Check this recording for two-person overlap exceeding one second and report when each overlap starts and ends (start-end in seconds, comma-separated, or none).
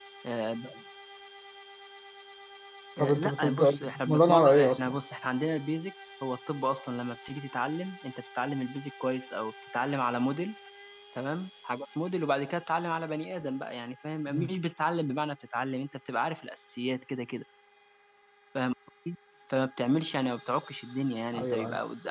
3.0-5.0